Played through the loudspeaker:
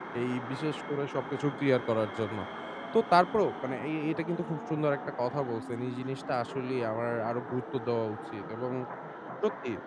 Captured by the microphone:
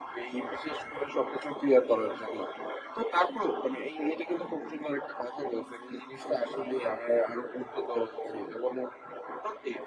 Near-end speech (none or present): none